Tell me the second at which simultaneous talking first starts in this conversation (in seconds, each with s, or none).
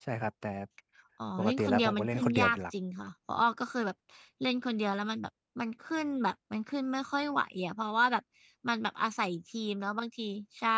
1.4 s